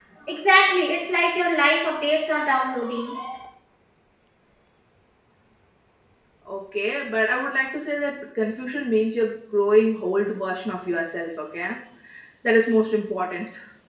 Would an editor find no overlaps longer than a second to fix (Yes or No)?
Yes